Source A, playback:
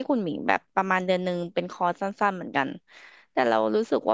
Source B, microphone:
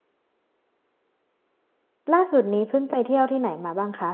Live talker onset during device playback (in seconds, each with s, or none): 2.1 s